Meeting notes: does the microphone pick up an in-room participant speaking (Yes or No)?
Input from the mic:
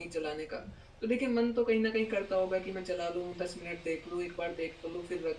Yes